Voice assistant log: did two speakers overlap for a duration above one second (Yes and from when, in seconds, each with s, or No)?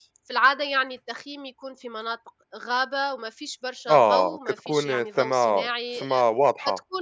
Yes, from 3.9 s